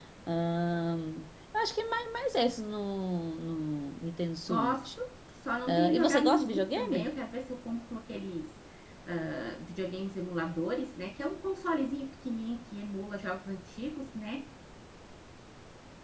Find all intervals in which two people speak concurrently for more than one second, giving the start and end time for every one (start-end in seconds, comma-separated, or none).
5.7-7.1